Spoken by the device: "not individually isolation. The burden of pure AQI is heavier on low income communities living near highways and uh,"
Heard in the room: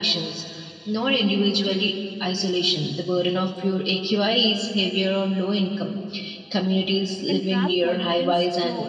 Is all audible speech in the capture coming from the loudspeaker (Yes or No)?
No